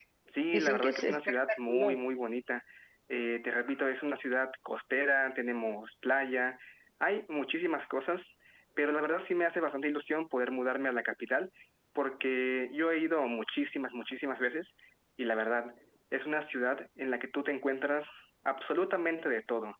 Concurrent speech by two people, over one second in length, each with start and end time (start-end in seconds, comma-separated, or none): 0.5-2.0